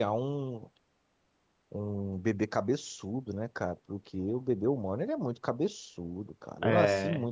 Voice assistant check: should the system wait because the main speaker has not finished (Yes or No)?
Yes